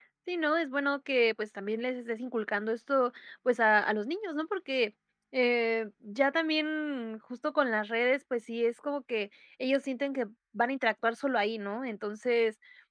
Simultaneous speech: No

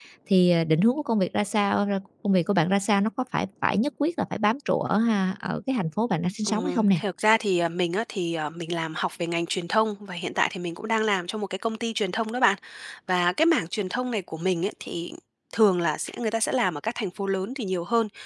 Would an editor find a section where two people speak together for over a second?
No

